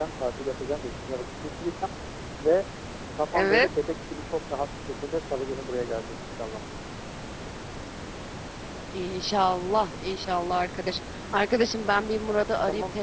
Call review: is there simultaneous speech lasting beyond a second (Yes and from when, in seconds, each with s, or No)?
No